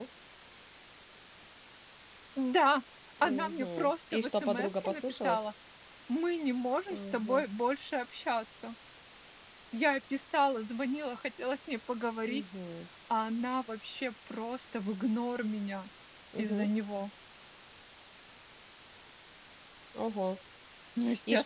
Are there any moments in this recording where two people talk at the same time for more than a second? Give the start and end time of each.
3.2-5.4

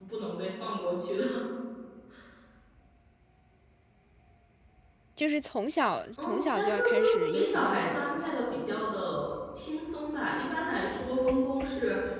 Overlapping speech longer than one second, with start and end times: 6.2-8.3

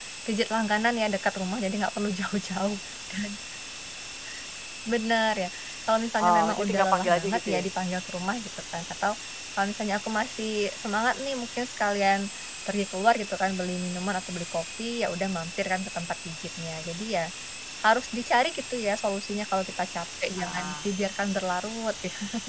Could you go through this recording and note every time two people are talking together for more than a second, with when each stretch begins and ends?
6.2-7.6

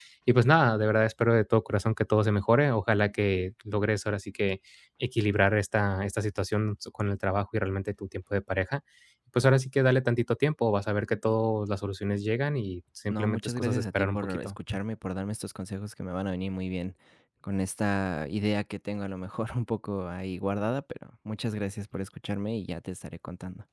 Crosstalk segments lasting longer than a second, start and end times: 13.1-14.5

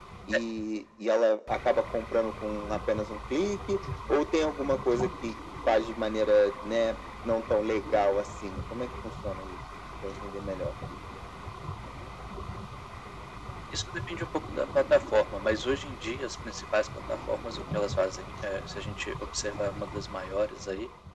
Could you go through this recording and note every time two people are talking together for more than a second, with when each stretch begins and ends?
none

